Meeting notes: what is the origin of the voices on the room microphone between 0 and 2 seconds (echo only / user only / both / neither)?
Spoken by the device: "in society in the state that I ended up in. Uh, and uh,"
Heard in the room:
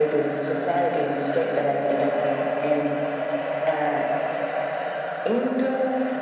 echo only